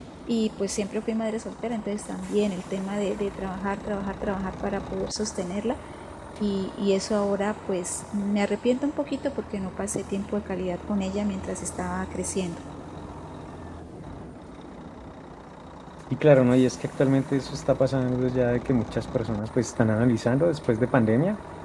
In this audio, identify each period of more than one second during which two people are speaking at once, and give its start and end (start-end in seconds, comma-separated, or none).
none